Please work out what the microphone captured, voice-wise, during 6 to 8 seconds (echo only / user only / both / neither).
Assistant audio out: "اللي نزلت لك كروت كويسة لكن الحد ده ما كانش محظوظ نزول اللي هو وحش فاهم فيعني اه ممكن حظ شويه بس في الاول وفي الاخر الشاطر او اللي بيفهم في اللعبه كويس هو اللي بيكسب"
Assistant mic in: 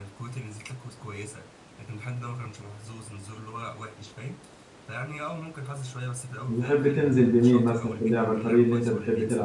both